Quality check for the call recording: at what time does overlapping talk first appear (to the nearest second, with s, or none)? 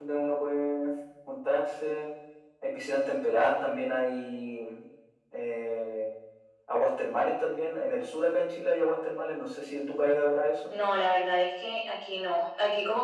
none